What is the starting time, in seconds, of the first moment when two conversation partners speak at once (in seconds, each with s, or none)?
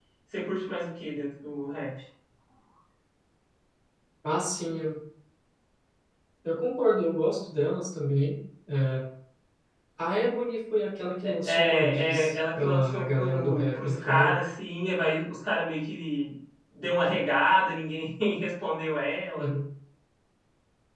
11.2 s